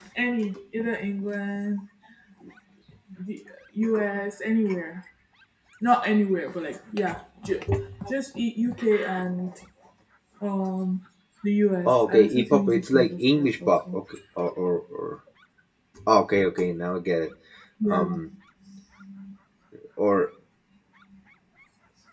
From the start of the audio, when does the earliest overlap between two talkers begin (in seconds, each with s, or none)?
11.9 s